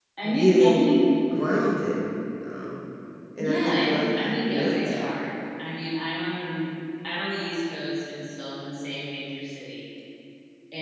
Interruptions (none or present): present